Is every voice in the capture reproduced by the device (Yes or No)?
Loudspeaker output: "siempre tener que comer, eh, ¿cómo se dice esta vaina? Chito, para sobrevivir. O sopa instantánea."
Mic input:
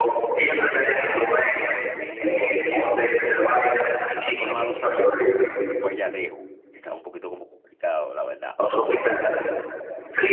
No